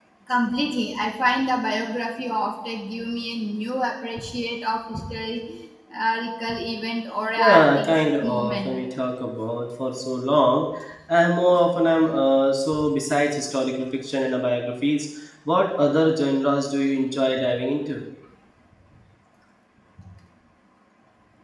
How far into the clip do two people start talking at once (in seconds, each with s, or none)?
7.4 s